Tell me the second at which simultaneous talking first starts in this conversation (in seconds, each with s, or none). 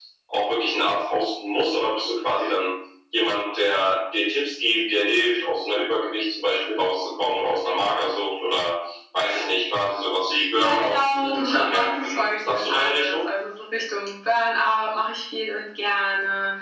10.3 s